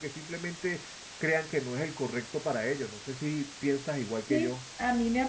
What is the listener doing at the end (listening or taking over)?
taking over